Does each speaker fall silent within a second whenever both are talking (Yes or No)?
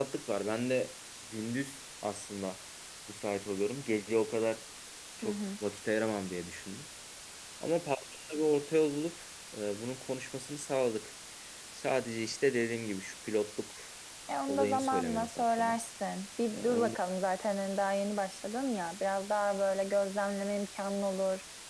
No